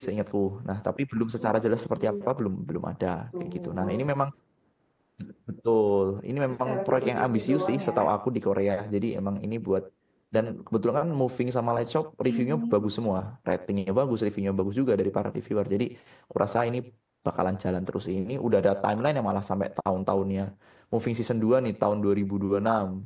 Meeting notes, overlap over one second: present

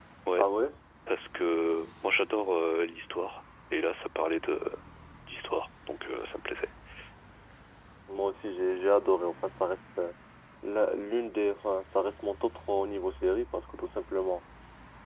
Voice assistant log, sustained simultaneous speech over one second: none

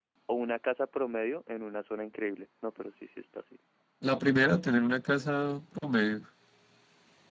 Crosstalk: none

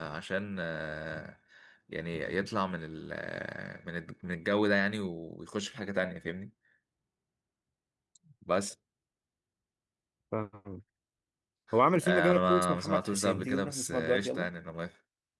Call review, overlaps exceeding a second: present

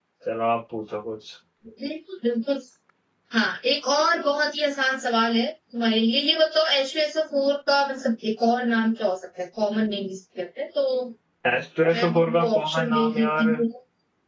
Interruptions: present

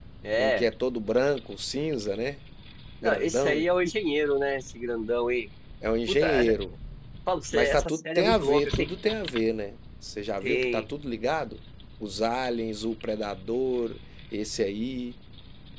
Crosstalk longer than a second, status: present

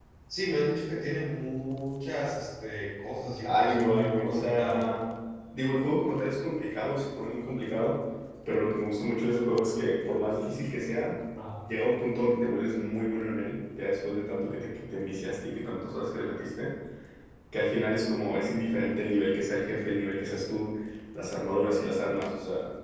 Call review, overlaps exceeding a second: present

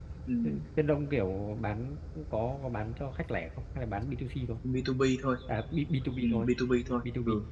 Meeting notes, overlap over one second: none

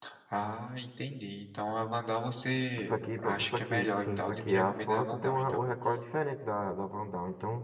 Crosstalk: present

